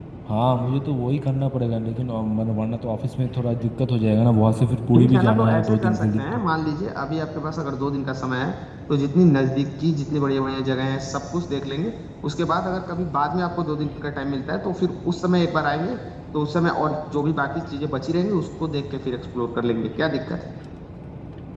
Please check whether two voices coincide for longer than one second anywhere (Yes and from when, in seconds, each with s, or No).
Yes, from 4.9 s